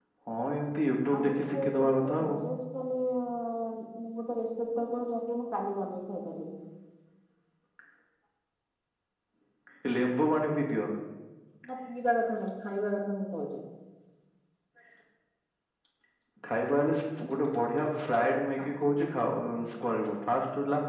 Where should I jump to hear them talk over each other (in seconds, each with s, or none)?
1.1 s